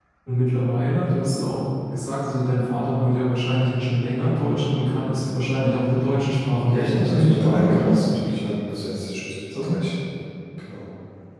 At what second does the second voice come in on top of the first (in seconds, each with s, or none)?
6.7 s